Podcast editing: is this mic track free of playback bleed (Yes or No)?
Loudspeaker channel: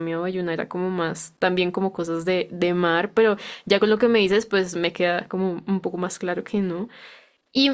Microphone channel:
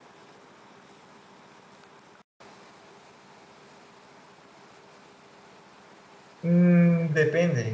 Yes